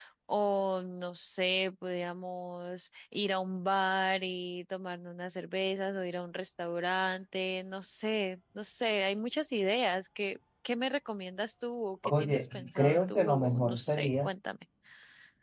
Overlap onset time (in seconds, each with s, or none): 12.0 s